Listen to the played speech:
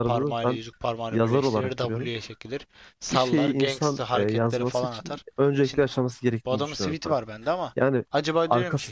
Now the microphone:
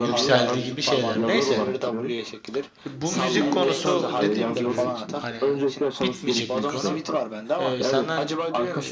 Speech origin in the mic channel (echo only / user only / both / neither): both